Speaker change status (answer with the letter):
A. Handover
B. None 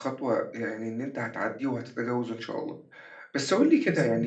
B